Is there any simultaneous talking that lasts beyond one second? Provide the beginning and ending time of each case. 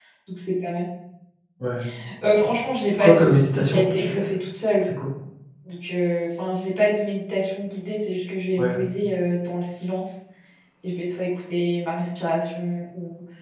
2.9-4.2

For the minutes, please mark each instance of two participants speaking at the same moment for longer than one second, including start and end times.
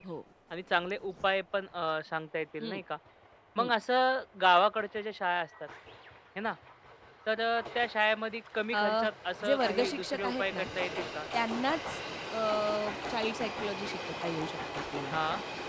9.4-10.7

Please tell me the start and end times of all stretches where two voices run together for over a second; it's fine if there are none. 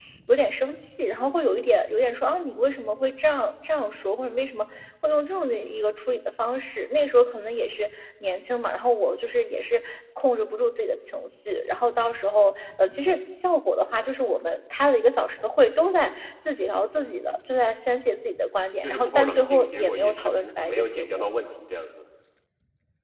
18.8-21.3

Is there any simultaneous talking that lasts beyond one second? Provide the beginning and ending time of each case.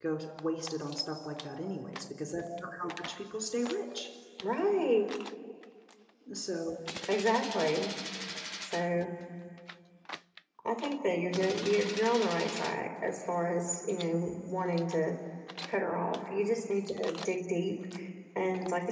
none

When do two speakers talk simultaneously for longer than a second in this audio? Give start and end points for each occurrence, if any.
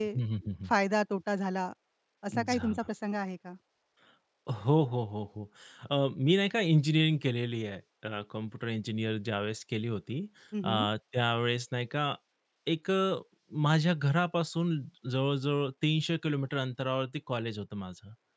none

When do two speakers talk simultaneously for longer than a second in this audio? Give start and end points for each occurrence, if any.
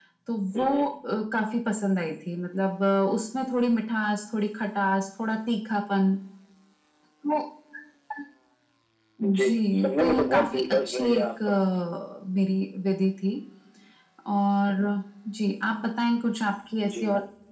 9.2-11.6

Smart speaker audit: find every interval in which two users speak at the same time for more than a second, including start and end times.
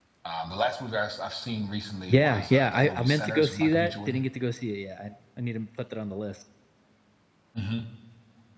2.1-4.2

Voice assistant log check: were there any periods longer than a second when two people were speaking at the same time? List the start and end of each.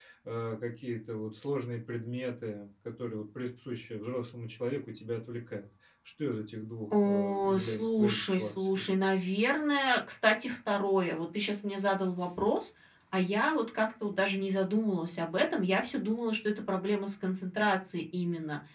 7.0-8.8

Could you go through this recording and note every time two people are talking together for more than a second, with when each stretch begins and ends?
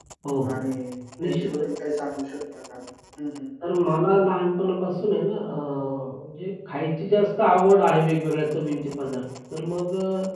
none

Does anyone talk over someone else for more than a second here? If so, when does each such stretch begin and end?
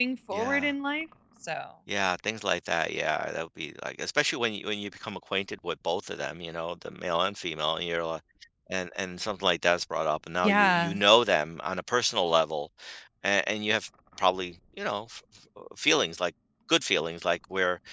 none

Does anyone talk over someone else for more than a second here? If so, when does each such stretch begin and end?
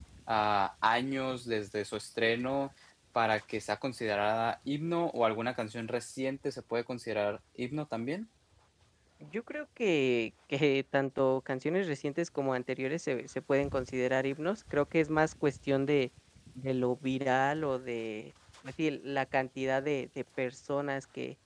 none

